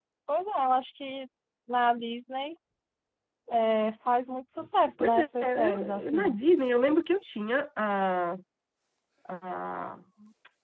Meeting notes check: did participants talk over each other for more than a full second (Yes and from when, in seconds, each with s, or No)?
Yes, from 5.0 s